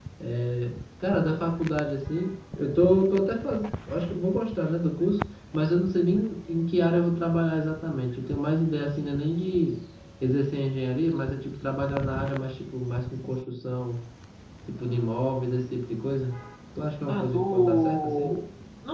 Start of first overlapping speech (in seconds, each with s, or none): 17.1 s